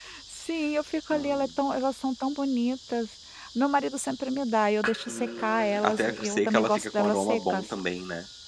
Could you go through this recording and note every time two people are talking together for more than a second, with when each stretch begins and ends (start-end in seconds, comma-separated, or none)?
5.1-7.7